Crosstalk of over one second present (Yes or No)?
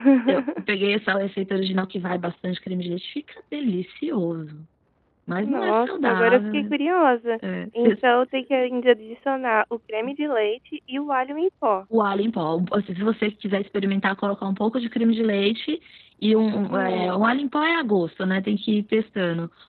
Yes